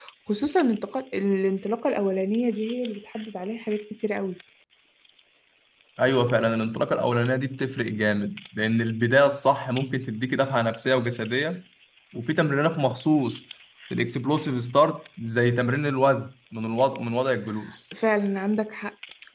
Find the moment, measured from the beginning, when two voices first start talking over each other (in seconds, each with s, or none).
none